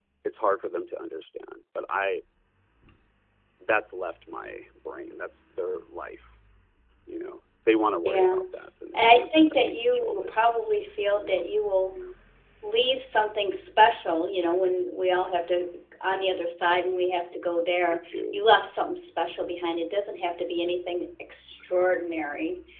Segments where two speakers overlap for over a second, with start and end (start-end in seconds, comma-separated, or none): 8.9-10.3